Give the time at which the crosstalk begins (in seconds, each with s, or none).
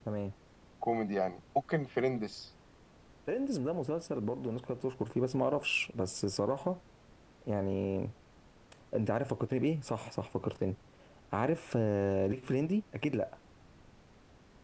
none